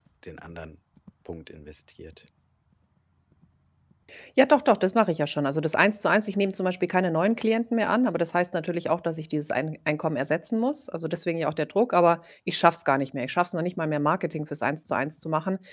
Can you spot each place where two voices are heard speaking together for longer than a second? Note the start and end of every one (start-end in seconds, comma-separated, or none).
none